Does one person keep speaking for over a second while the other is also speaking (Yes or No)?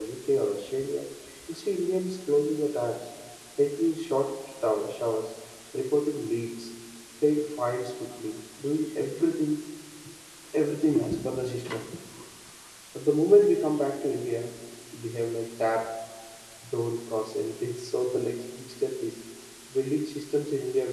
No